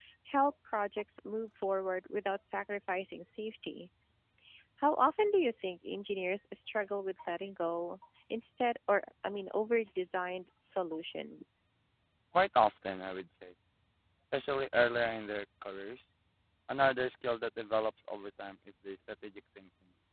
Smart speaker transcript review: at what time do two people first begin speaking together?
none

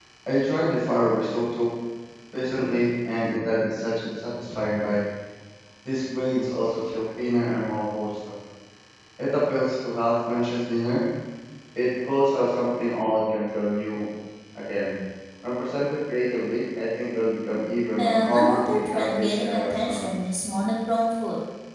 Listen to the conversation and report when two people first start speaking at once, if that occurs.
18 s

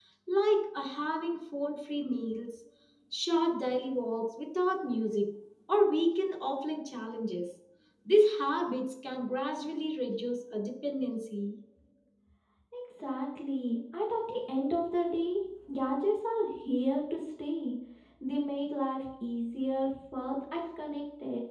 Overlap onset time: none

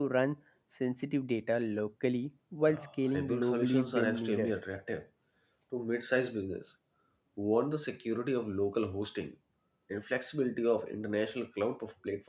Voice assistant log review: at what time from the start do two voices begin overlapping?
3 s

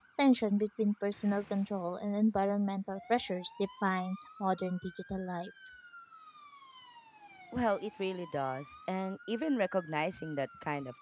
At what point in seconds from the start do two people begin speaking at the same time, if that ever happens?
none

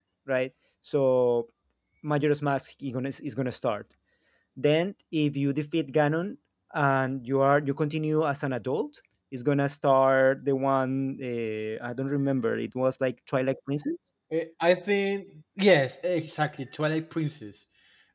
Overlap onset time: none

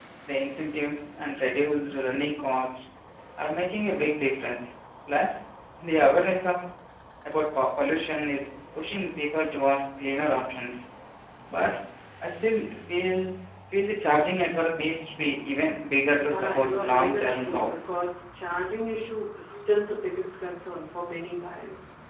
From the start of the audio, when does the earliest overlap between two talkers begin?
16 s

